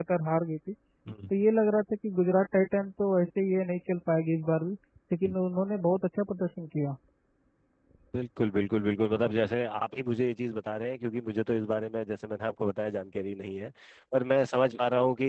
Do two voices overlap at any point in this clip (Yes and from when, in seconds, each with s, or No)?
No